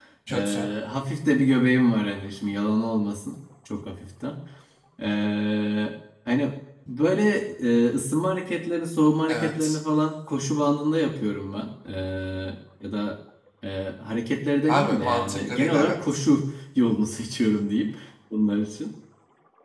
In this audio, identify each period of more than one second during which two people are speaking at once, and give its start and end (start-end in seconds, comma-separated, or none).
14.7-16.2